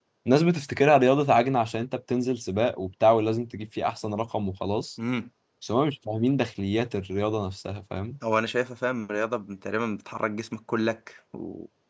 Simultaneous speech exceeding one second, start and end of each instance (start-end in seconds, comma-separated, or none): none